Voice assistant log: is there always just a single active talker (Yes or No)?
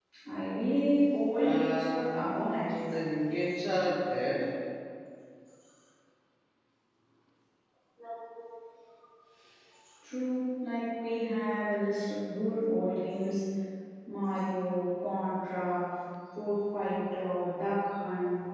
No